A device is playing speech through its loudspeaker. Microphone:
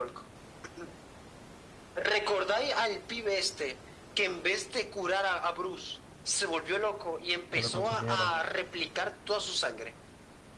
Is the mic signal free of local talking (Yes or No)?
No